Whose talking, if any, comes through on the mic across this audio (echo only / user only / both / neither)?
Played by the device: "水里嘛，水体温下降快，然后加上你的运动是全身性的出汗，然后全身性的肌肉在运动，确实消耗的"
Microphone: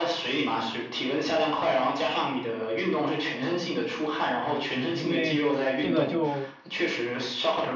both